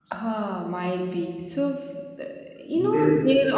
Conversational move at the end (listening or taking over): listening